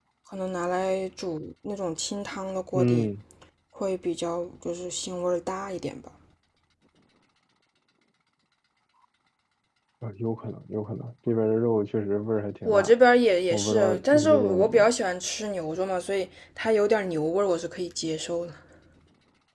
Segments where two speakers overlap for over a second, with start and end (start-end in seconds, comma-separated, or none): 13.5-14.9